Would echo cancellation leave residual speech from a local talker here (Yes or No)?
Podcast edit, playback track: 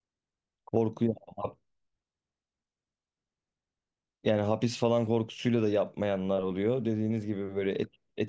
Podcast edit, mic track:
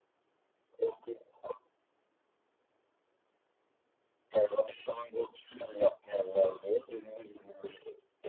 No